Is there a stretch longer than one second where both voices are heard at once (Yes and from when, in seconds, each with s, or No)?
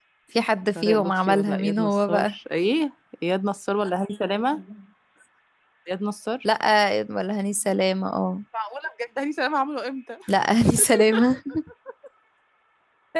Yes, from 0.8 s